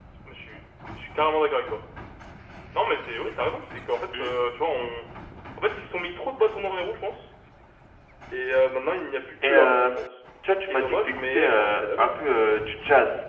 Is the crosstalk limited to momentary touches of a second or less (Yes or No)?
No